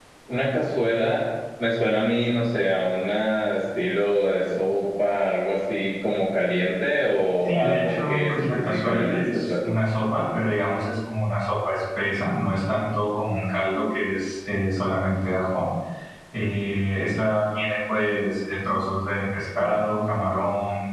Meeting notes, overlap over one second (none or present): present